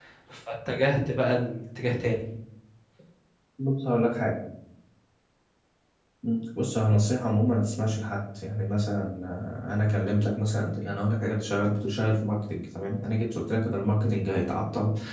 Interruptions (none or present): none